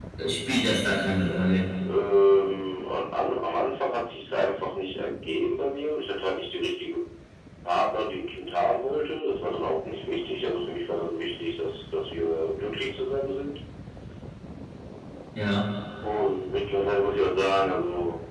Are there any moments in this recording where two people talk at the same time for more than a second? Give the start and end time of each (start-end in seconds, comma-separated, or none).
none